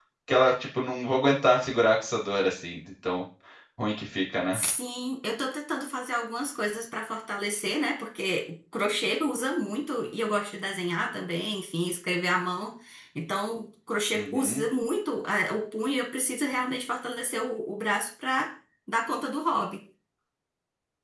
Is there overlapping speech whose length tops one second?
No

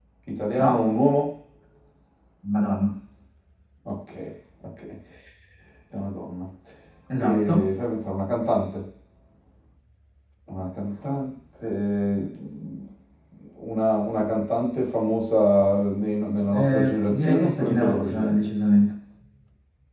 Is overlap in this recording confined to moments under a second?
No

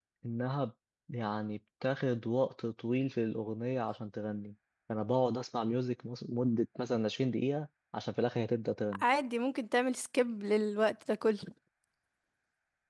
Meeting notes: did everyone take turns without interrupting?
Yes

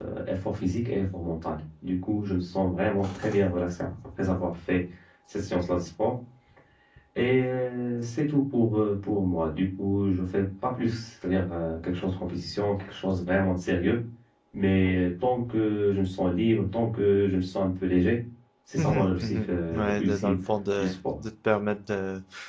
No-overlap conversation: No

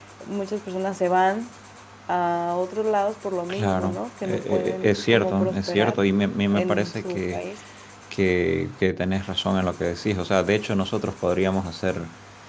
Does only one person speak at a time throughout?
No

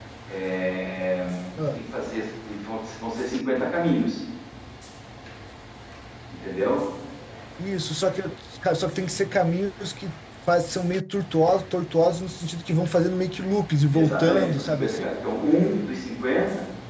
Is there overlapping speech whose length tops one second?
Yes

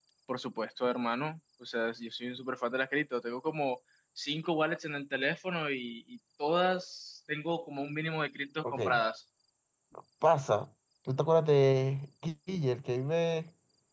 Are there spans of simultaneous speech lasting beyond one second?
No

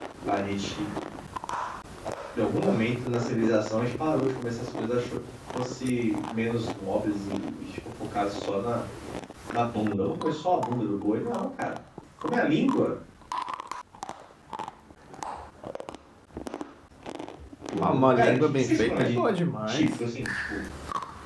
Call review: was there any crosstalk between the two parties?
Yes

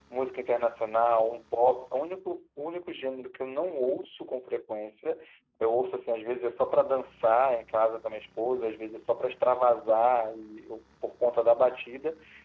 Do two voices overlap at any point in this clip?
No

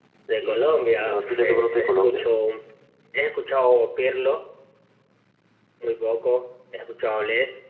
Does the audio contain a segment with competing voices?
Yes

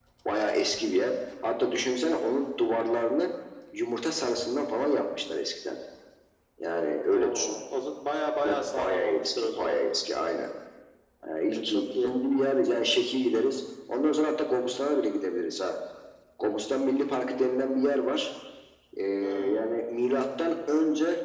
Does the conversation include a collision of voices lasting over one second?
Yes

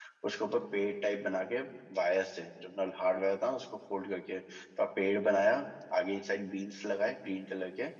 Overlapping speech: No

